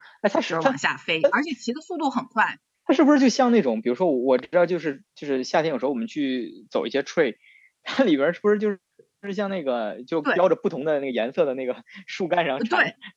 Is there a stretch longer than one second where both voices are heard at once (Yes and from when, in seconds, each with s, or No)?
No